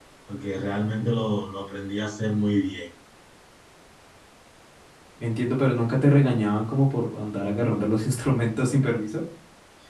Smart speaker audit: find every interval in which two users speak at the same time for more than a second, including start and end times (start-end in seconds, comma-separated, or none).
none